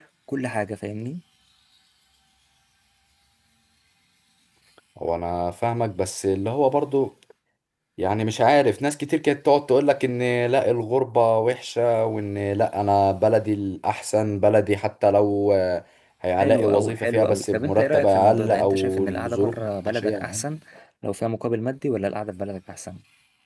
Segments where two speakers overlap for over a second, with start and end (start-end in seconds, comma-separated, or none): 16.4-20.4